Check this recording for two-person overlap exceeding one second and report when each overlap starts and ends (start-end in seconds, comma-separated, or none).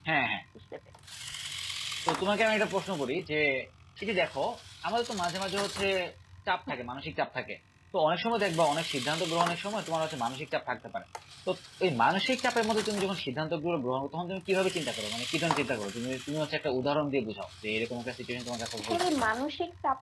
none